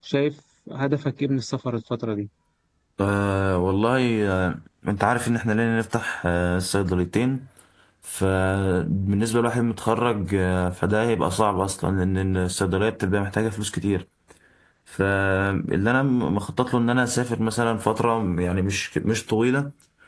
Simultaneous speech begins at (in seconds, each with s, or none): none